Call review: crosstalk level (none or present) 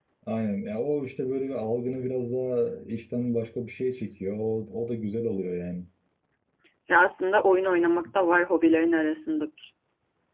none